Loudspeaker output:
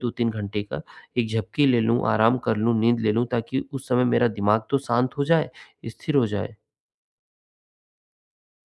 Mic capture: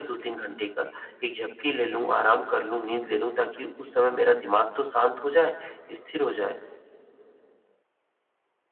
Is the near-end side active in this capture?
No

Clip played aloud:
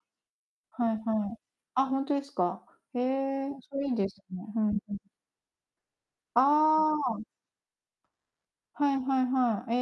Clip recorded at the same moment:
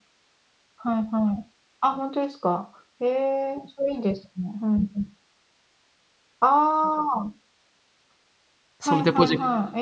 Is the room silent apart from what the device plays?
No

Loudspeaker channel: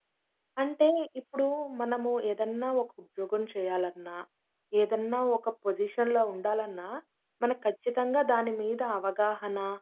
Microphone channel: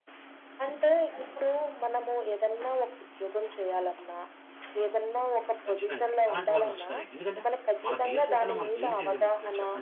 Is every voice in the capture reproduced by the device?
No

